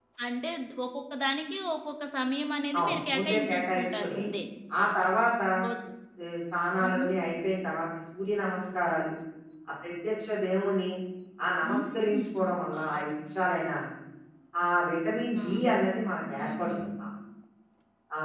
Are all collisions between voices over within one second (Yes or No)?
No